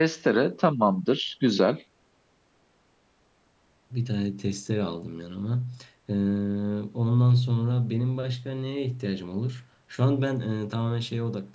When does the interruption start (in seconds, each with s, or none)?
none